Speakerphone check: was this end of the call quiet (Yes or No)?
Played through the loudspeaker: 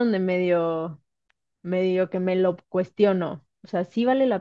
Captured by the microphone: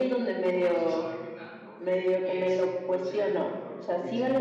No